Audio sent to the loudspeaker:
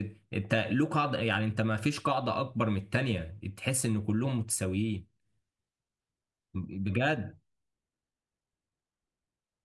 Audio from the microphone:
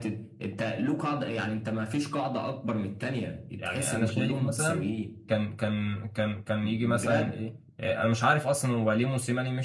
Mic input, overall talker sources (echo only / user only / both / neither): both